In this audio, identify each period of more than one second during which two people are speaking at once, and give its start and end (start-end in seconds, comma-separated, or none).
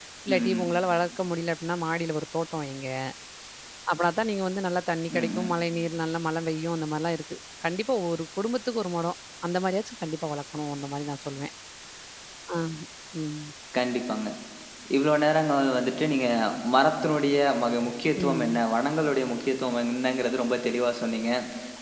none